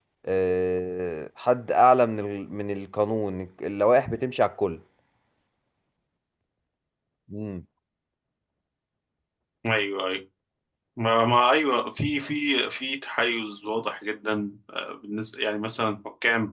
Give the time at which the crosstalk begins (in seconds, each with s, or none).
none